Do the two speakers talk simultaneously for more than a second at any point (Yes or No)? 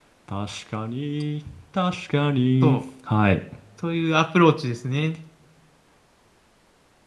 No